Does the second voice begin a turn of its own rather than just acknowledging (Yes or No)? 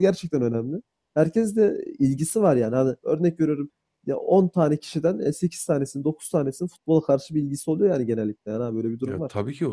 Yes